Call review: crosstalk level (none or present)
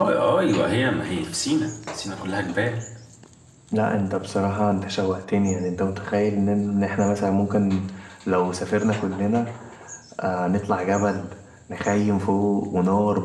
none